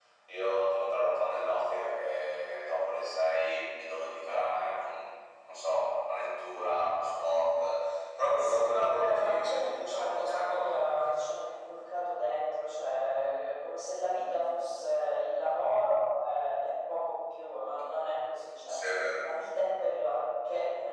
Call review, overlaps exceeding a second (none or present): present